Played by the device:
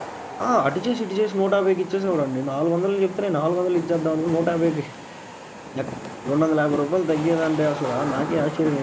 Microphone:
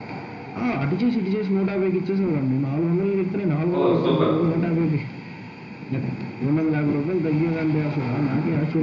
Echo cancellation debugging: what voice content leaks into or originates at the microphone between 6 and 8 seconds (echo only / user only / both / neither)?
echo only